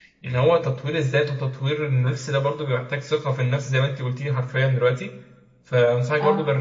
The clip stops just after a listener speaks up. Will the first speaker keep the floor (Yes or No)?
Yes